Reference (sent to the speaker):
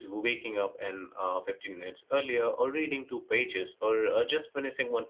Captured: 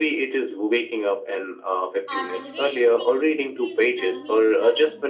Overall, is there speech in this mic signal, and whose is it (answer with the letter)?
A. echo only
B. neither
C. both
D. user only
C